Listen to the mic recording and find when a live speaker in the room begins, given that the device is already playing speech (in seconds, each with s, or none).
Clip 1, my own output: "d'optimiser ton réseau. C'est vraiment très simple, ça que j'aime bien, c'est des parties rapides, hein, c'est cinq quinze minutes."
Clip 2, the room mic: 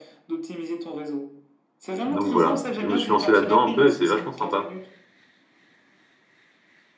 2.0 s